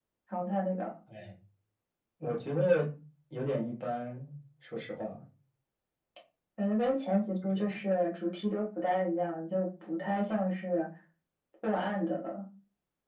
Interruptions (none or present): none